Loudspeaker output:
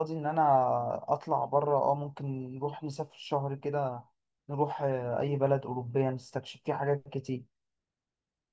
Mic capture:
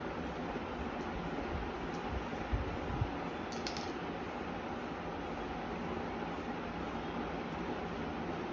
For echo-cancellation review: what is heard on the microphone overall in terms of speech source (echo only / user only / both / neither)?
neither